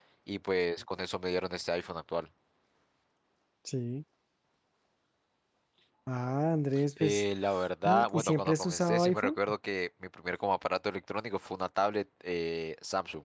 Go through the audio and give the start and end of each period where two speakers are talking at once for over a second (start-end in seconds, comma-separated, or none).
7.8-9.4